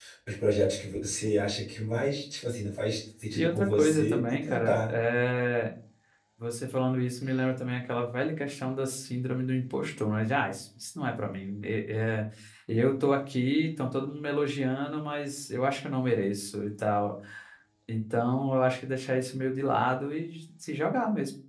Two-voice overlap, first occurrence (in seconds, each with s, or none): 3.4 s